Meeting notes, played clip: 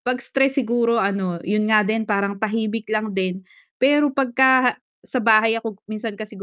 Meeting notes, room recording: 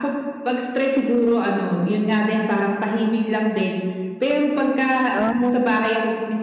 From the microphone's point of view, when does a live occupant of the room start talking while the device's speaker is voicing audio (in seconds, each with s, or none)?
5.1 s